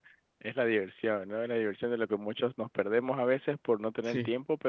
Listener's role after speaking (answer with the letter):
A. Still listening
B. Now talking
A